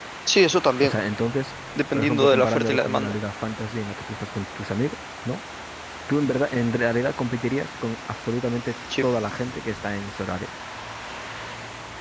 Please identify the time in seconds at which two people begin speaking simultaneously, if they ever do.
1.8 s

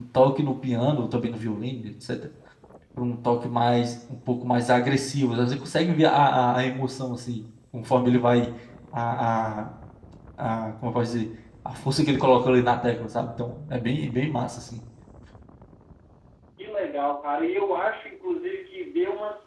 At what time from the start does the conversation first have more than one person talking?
none

